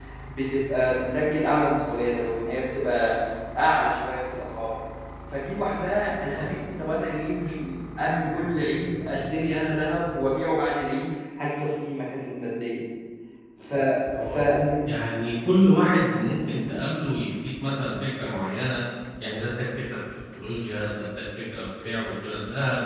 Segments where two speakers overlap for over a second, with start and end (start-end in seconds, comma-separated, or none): none